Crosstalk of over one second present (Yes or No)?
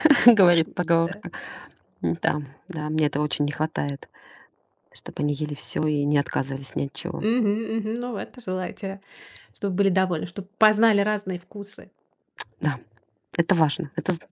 No